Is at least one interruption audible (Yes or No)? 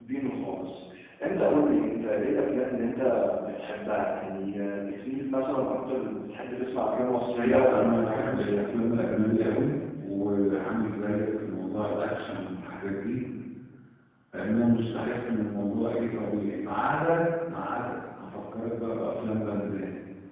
Yes